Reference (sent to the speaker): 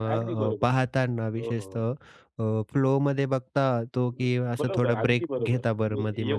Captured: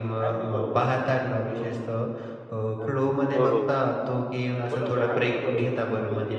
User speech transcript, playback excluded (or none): हं. हो, हो, हो.